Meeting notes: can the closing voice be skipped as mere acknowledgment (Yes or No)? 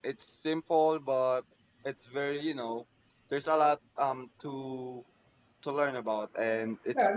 No